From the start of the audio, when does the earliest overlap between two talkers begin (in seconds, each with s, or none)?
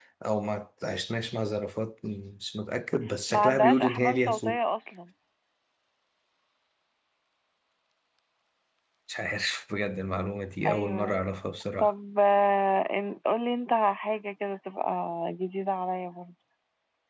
3.3 s